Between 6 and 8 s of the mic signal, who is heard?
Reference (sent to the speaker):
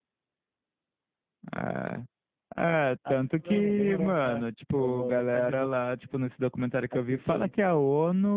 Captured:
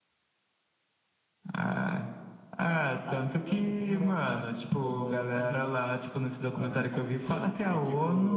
both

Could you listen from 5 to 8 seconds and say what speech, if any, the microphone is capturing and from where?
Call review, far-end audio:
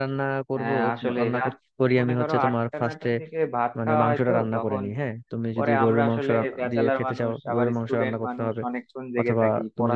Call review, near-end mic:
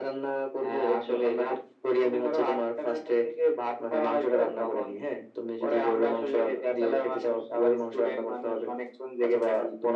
echo only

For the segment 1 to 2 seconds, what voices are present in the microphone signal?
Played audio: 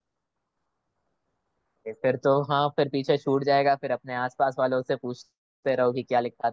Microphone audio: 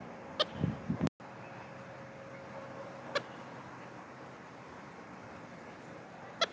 neither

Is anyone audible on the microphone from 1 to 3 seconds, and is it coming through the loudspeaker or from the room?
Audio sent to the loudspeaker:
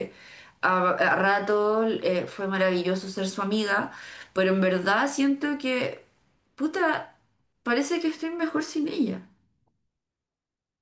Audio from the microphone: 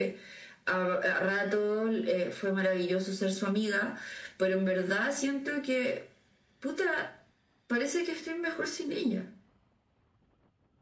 echo only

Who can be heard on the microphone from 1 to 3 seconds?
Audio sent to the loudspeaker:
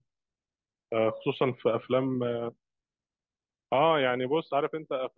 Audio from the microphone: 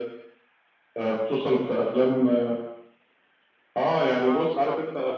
echo only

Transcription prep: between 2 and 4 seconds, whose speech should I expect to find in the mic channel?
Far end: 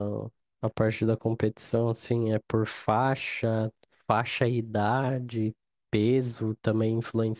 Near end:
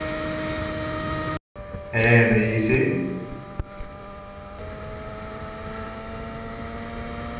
user only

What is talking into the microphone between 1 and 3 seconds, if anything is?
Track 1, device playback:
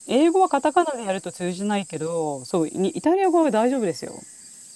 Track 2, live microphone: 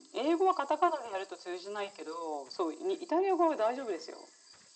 echo only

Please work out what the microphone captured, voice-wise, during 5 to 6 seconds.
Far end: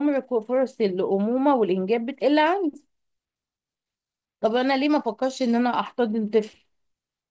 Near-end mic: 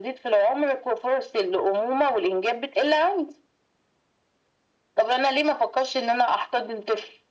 echo only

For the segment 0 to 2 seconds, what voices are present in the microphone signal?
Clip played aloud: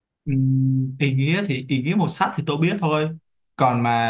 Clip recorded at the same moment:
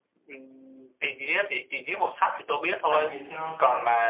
echo only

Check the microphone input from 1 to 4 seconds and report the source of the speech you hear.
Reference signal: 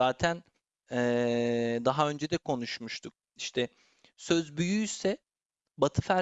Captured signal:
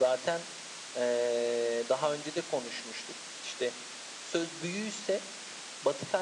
echo only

